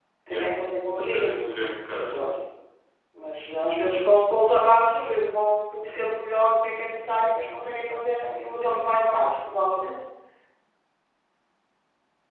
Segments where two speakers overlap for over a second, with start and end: none

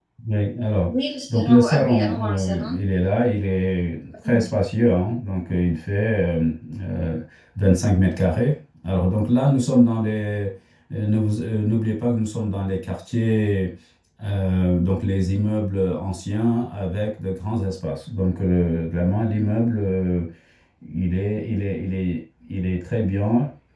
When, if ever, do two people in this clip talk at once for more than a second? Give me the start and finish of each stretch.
1.3-2.8

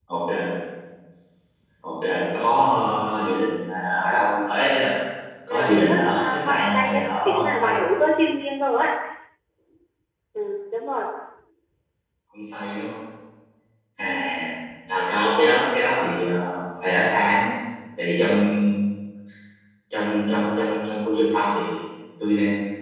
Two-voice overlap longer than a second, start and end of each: 5.5-7.8

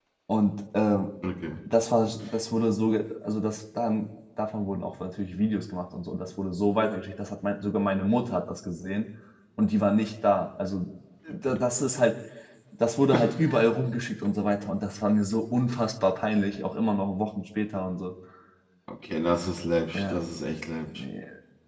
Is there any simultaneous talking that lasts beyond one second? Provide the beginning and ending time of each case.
none

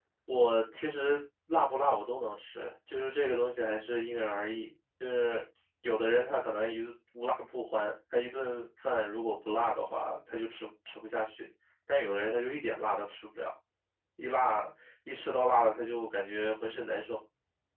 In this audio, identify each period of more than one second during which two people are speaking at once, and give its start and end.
none

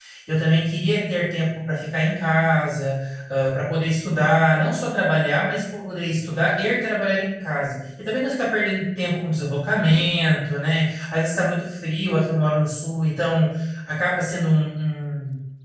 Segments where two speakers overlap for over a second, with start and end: none

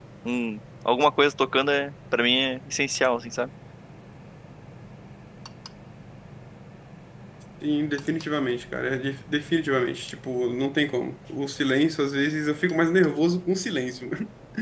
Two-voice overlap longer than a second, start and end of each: none

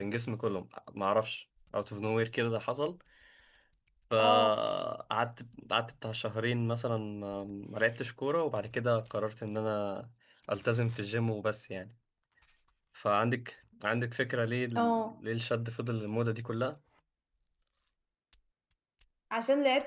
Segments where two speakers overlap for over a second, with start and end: none

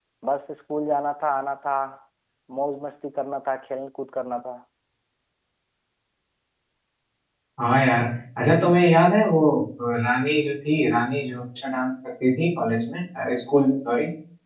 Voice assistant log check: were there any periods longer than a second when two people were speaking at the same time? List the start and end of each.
none

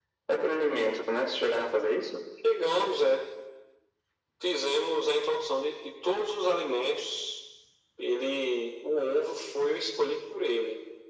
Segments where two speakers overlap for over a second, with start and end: none

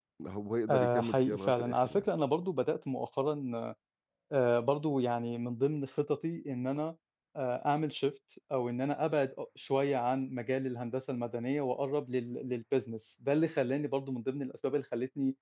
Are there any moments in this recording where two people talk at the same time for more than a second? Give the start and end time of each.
0.7-2.1

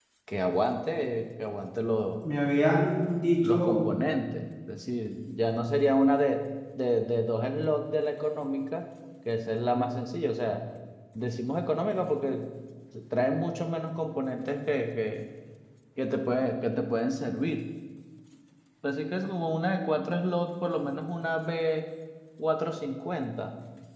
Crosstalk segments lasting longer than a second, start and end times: none

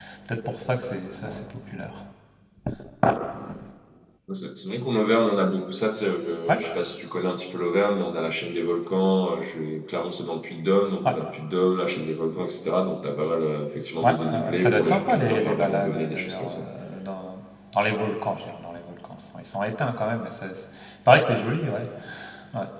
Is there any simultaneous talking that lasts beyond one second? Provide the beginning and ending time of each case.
14.0-16.6

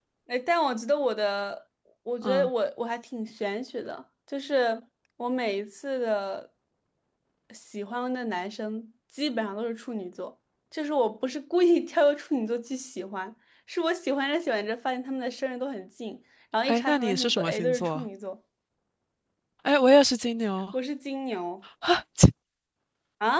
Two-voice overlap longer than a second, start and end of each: 16.7-18.0

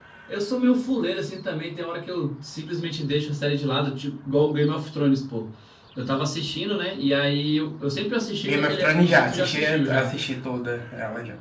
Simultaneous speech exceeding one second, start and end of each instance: 8.4-10.1

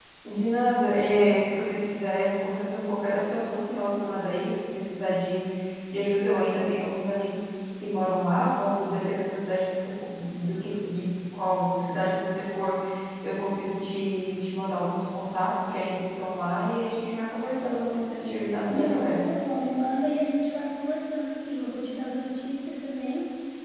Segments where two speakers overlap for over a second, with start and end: none

